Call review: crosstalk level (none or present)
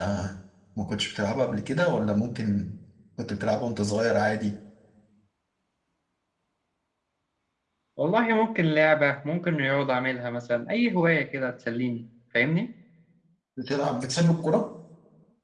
none